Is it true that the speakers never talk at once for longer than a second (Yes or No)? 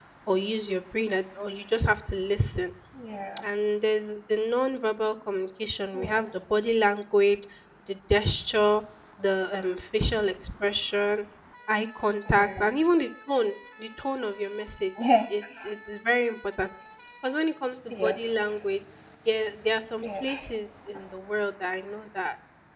Yes